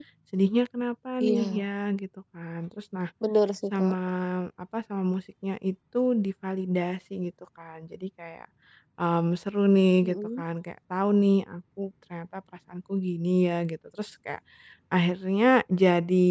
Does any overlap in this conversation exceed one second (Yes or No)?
No